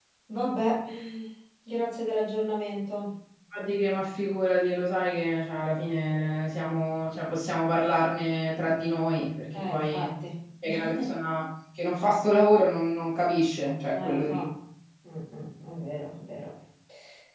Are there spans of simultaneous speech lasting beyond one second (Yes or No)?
No